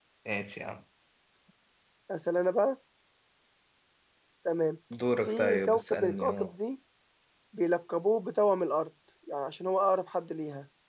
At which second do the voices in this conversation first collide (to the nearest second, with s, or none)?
5 s